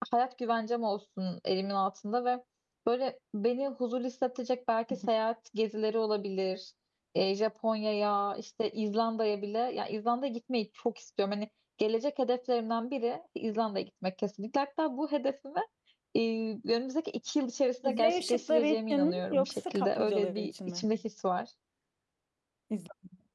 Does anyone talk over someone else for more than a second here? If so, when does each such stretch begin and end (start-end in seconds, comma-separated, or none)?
17.9-20.8